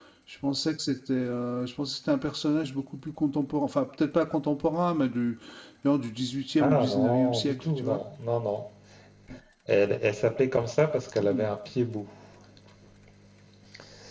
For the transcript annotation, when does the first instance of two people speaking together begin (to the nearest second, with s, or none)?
7 s